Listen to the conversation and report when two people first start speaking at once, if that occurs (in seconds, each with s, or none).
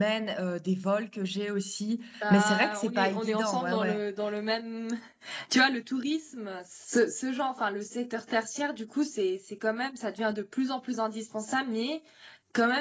2.2 s